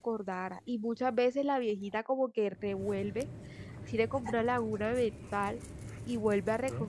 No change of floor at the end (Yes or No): Yes